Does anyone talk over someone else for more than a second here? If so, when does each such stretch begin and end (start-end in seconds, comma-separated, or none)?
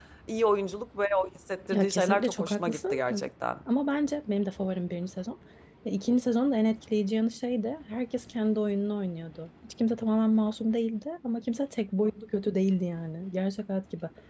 1.7-3.3